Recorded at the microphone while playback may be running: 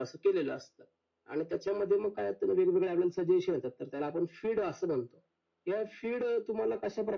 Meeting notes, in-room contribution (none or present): none